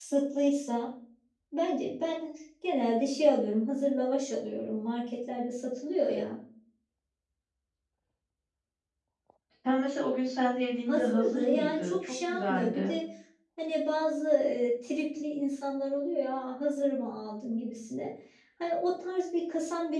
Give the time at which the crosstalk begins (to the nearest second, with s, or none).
11 s